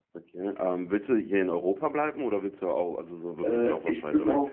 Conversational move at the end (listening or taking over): taking over